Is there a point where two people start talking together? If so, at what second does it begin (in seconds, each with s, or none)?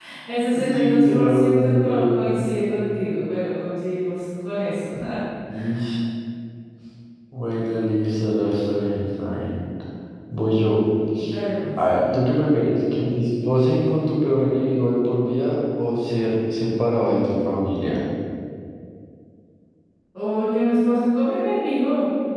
0.5 s